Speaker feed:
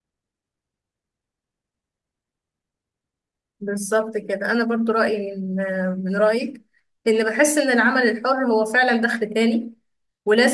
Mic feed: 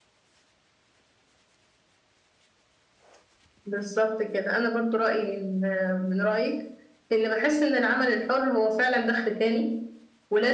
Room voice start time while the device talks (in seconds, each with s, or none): none